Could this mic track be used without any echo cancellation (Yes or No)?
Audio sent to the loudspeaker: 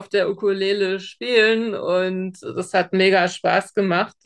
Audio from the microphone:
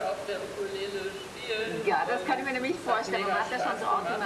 No